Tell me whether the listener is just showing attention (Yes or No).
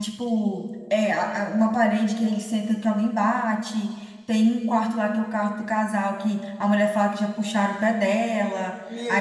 No